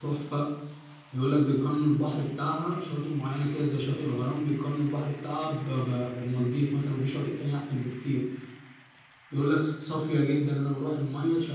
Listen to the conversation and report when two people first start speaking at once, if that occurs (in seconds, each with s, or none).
none